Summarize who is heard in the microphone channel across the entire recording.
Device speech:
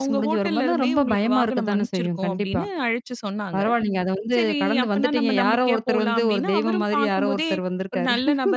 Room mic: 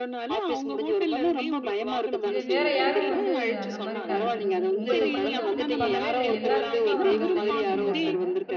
both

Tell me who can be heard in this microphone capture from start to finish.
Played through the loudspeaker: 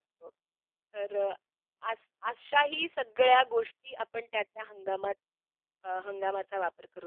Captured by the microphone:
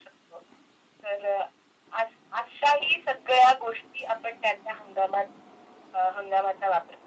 echo only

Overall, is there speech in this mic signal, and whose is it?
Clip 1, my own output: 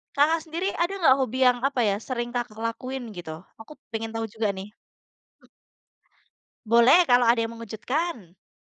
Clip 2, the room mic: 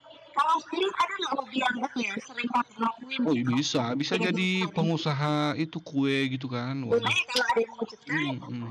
both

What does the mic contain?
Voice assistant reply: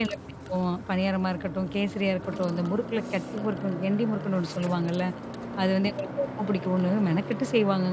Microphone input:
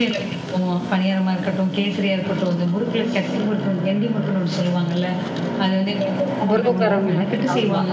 both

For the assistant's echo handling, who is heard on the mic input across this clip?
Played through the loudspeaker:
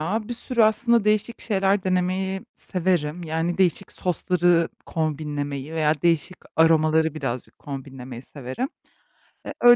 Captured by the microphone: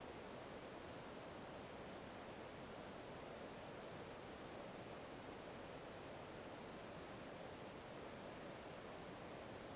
neither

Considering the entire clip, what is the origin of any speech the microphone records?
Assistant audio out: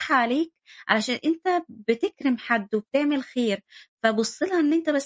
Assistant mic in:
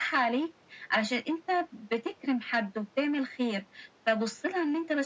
echo only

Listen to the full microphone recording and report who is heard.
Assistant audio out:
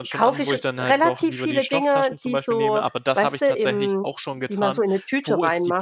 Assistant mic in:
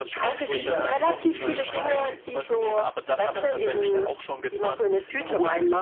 both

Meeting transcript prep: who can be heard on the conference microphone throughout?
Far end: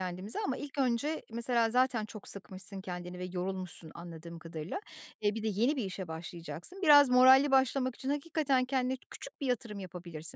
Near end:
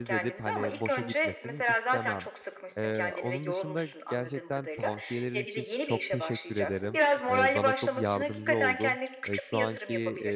both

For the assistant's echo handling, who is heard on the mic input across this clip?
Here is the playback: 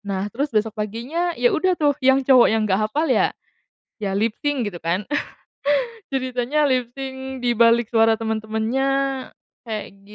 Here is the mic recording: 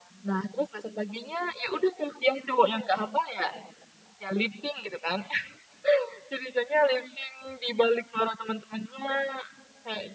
echo only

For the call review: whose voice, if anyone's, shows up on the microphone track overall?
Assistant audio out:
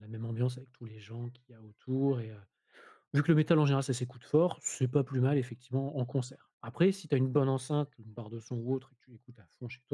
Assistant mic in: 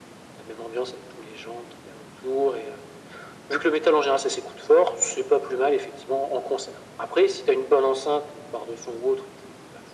echo only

